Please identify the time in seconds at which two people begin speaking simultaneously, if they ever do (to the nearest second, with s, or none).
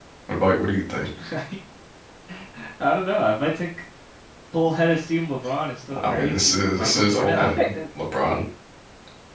6 s